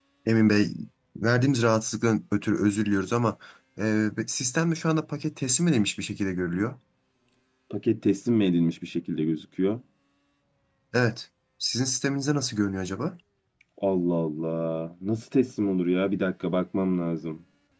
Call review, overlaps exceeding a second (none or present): none